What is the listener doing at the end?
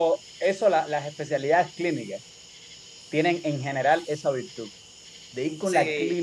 listening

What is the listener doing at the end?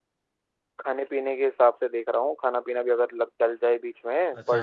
taking over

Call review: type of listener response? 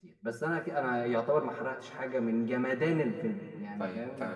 taking over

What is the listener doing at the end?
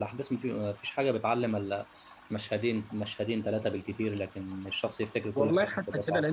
taking over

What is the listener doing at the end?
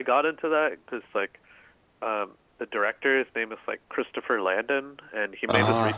listening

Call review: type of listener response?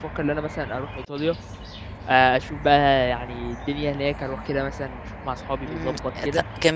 taking over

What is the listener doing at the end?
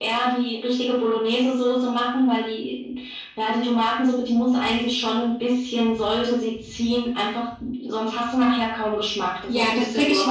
taking over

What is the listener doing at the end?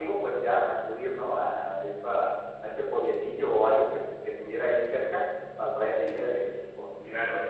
taking over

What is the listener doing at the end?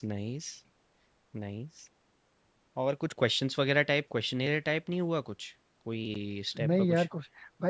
taking over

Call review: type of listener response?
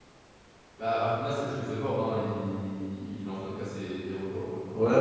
taking over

